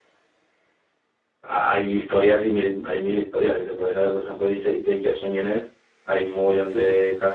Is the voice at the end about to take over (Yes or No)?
No